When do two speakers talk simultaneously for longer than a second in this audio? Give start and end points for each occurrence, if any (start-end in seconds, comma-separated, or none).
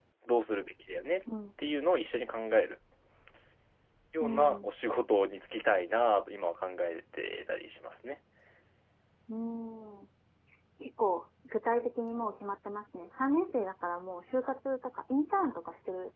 none